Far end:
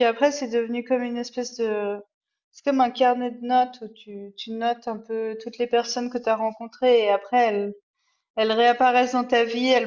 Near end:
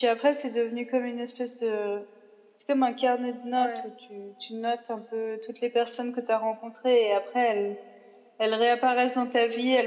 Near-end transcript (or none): Ouais.